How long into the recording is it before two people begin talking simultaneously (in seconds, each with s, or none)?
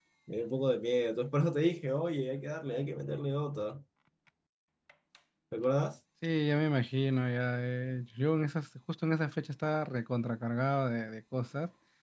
none